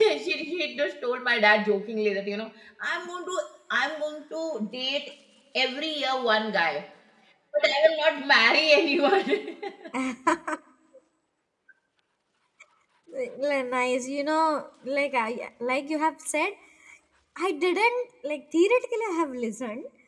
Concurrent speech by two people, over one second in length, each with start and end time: none

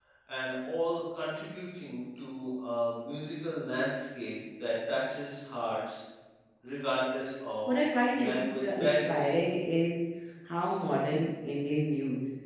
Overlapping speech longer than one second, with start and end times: 7.8-9.3

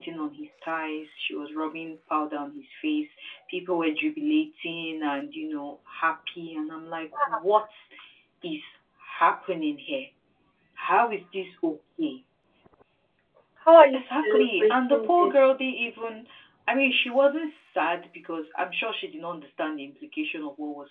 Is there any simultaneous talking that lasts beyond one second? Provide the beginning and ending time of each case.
13.9-15.3

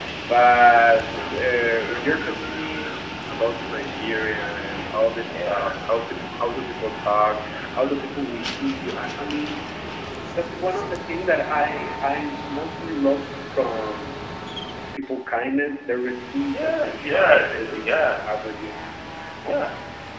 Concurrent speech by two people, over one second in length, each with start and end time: 16.5-18.1

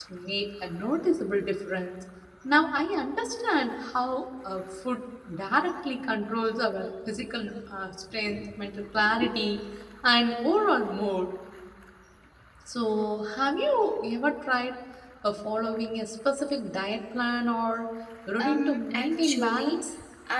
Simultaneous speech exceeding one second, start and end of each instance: 18.4-19.8

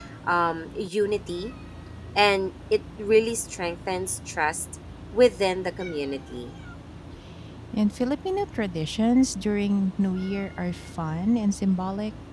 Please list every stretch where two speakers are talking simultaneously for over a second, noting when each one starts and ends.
none

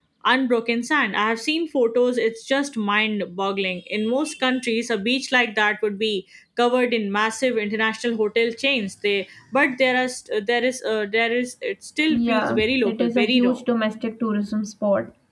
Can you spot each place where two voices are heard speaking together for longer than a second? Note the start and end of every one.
12.2-13.6

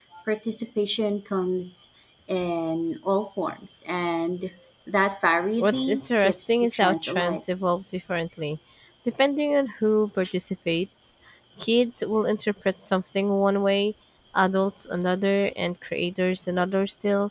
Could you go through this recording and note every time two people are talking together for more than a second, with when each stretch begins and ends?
5.6-7.4

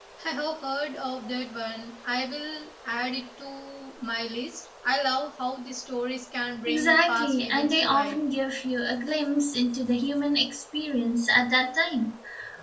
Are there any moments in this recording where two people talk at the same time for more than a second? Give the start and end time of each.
6.7-8.2

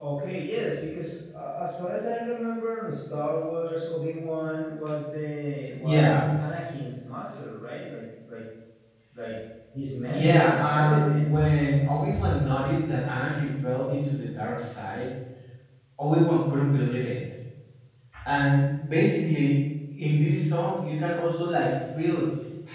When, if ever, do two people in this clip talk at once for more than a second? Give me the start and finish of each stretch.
10.1-11.3

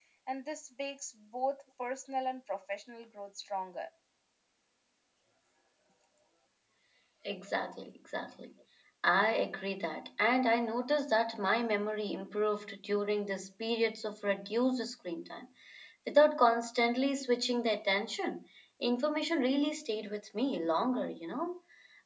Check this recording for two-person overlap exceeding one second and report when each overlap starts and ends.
none

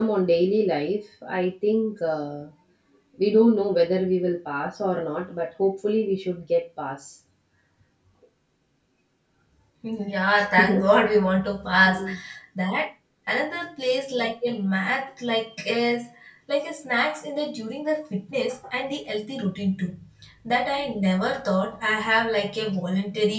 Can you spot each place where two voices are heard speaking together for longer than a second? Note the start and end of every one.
none

